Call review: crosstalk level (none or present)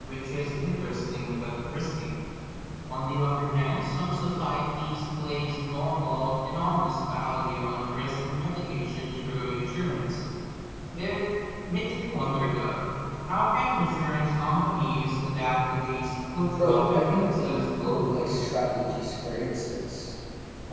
present